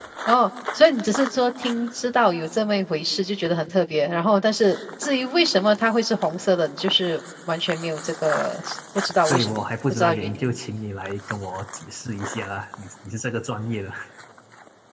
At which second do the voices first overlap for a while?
9.3 s

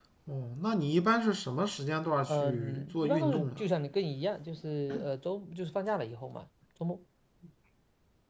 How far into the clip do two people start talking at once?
2.3 s

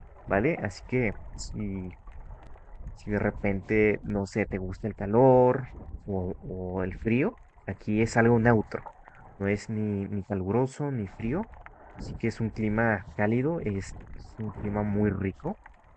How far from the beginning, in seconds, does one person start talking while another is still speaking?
none

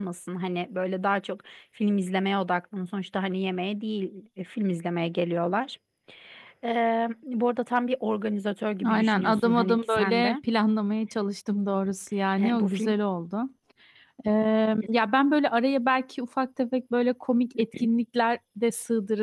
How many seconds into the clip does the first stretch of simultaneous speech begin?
8.9 s

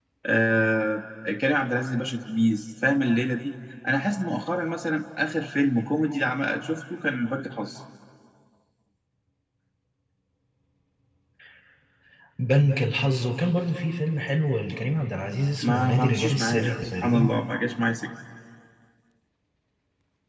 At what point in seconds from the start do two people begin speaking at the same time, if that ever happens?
15.6 s

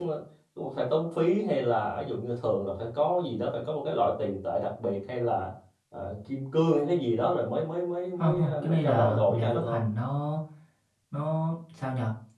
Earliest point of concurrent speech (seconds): 8.2 s

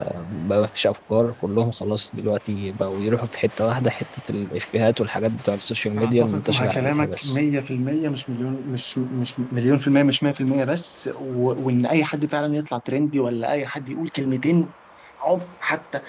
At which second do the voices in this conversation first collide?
6.0 s

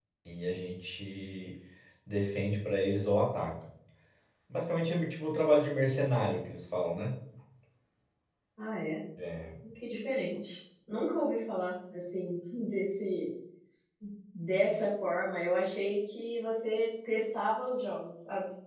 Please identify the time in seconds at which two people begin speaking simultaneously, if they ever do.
none

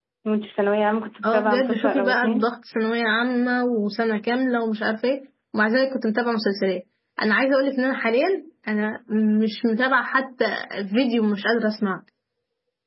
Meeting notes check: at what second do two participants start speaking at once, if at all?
1.2 s

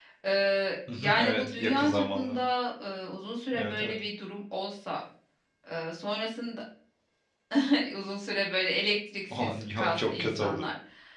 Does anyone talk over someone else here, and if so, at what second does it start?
0.9 s

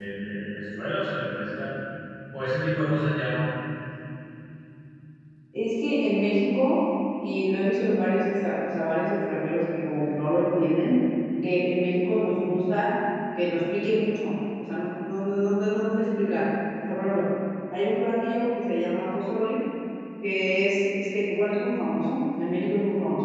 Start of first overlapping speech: none

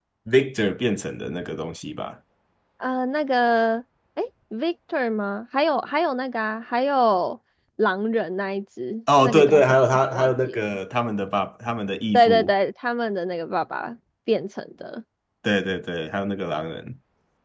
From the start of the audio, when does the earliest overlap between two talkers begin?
9.2 s

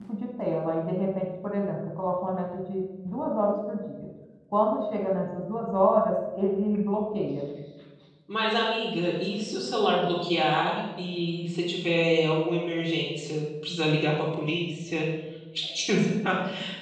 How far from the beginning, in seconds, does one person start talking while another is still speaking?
none

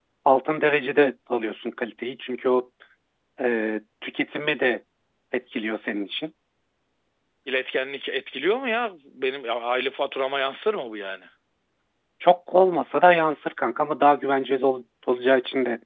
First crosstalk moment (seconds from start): none

